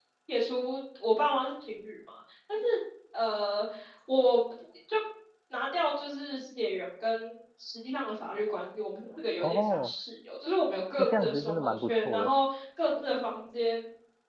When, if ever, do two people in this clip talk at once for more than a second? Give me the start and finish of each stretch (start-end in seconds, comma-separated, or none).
11.0-12.4